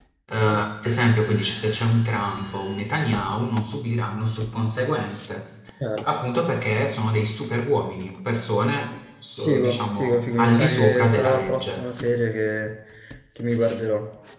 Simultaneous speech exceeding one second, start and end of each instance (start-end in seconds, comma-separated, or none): 9.4-11.8